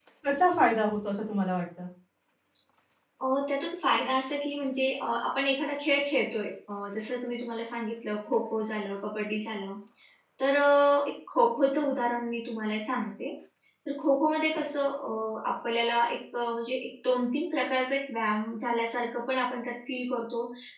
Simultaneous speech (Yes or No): No